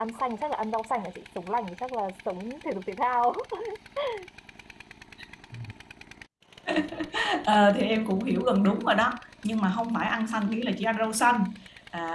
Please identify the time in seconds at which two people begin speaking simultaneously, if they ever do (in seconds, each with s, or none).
none